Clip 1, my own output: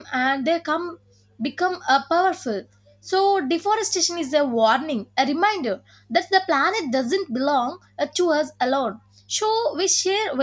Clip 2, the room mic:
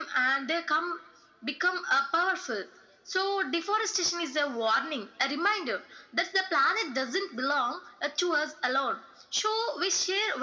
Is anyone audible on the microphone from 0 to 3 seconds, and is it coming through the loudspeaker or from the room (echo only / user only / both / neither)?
echo only